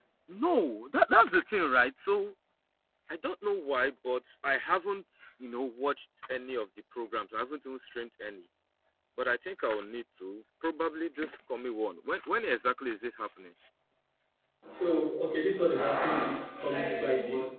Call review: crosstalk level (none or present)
none